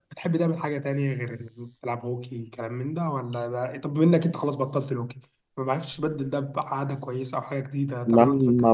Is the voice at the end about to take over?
Yes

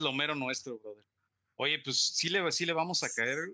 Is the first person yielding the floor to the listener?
No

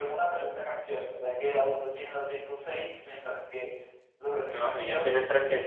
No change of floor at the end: No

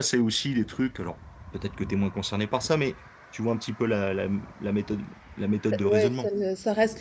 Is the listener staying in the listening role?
No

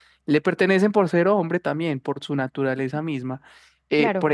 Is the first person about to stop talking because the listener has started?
No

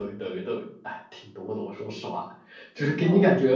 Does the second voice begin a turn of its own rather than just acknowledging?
No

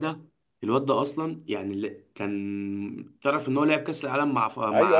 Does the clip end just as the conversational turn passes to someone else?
Yes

